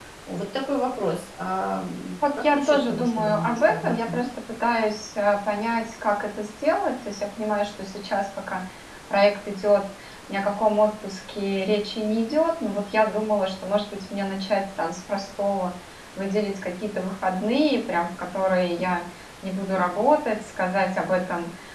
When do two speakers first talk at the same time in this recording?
2 s

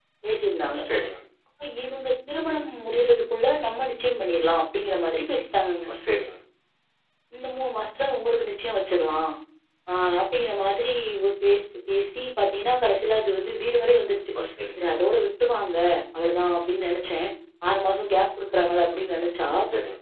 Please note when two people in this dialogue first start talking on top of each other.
none

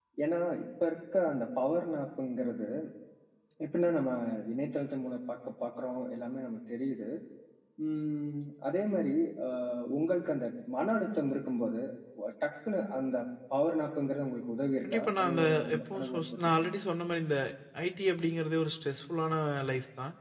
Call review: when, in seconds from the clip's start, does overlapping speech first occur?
15 s

